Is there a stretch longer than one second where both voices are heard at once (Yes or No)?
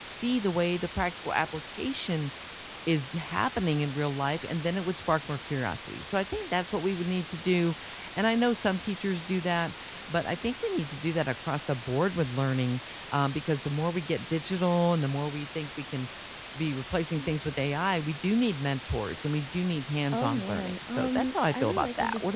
Yes